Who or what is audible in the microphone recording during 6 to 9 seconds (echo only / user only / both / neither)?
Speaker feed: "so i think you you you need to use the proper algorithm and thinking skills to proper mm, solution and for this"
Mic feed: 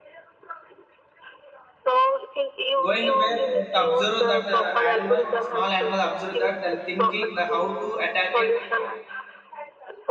both